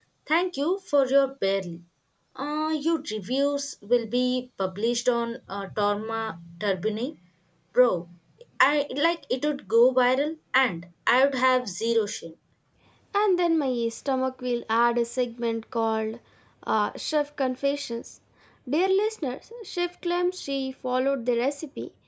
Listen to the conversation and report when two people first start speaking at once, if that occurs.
none

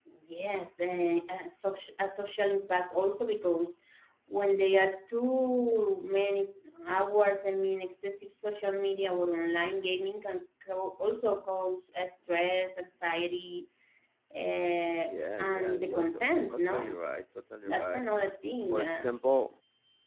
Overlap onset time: 15.4 s

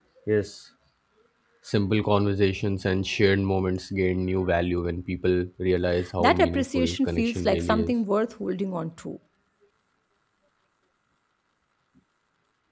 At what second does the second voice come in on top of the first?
6.2 s

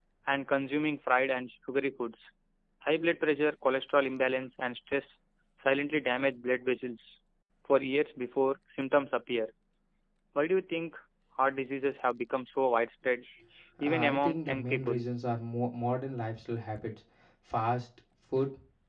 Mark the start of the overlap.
13.8 s

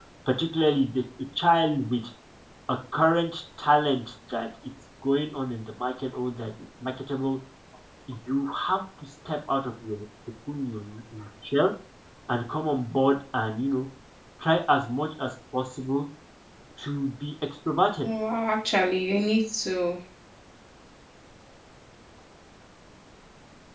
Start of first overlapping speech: none

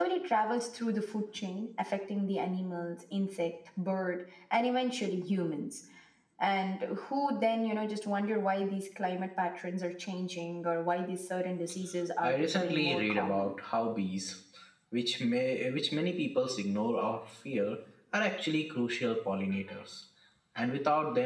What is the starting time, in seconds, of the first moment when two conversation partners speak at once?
12.2 s

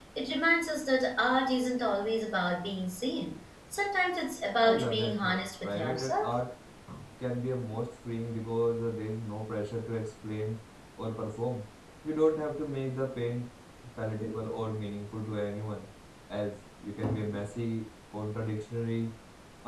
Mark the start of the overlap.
4.6 s

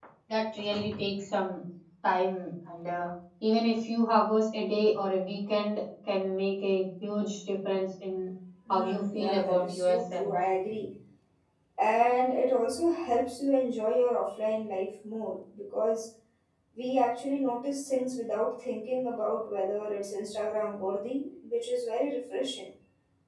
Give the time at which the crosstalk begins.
8.7 s

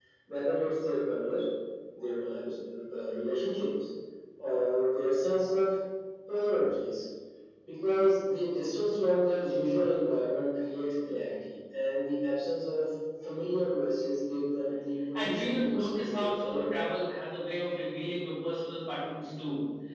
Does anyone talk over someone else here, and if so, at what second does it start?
15.1 s

